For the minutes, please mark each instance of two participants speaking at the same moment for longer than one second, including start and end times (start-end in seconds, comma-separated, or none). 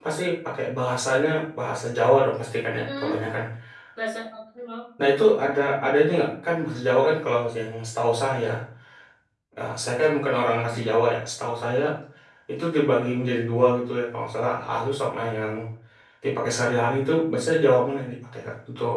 none